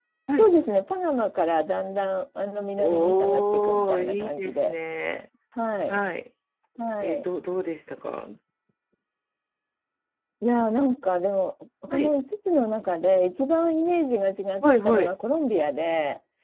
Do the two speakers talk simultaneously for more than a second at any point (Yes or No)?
Yes